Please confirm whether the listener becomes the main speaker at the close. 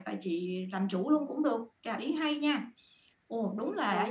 Yes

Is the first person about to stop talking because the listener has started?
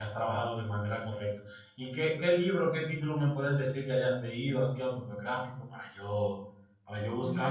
Yes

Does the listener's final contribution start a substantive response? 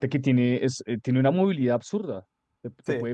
No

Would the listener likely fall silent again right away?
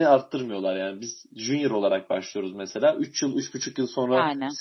Yes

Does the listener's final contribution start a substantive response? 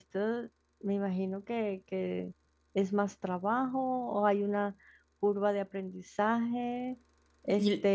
No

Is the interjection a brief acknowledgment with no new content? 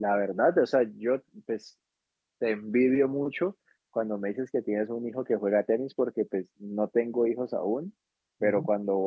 Yes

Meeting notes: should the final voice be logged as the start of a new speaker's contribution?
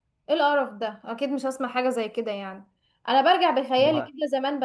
No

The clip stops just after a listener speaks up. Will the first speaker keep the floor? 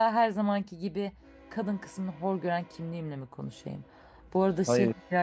Yes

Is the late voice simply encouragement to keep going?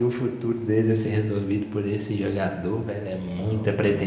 No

